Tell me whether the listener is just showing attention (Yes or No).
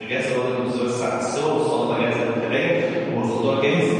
Yes